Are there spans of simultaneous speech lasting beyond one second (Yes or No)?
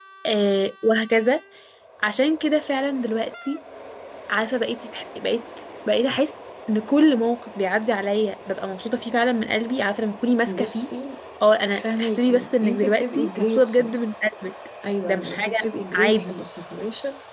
Yes